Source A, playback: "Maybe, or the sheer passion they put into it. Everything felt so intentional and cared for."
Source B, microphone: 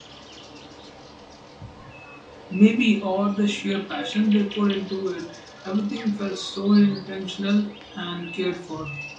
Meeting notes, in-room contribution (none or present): none